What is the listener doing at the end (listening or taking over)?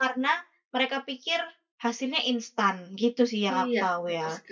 taking over